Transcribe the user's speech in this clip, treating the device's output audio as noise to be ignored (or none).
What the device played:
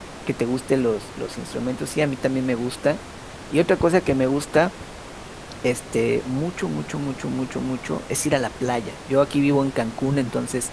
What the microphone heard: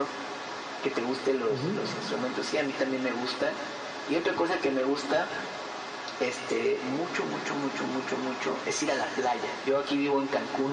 Ujú.